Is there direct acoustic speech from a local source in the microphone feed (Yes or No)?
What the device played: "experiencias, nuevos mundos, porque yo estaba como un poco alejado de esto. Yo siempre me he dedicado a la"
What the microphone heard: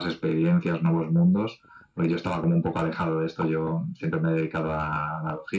No